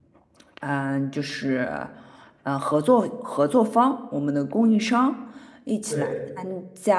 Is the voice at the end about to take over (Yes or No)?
No